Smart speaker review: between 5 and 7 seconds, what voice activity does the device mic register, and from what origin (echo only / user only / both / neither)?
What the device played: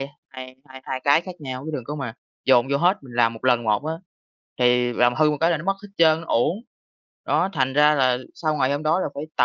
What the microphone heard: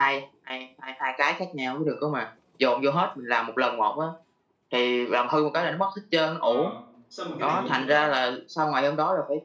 both